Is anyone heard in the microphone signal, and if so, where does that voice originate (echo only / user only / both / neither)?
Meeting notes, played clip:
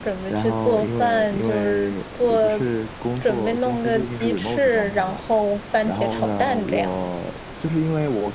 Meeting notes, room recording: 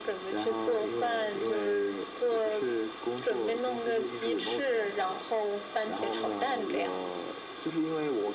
echo only